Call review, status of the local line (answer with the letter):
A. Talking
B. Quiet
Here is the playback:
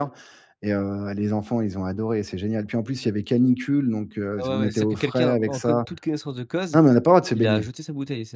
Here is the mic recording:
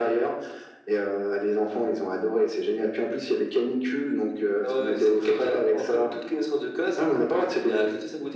B